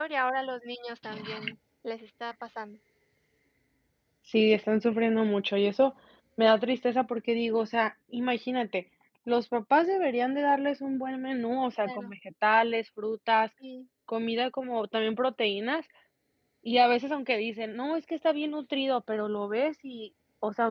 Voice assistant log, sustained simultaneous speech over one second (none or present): none